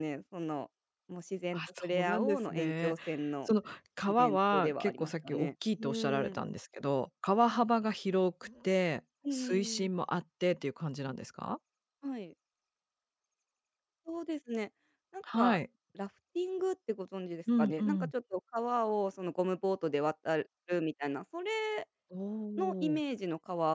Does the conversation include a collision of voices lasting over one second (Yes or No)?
Yes